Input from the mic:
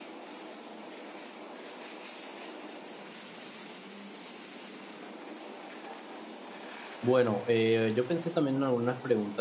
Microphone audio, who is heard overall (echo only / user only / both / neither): user only